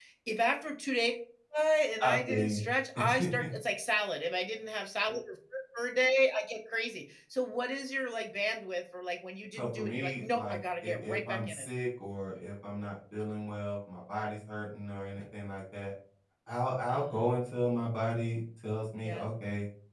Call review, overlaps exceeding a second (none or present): present